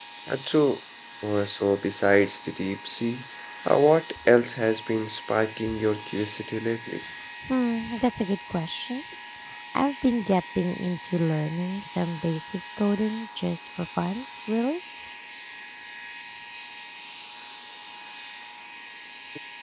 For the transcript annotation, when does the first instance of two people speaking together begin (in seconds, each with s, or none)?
none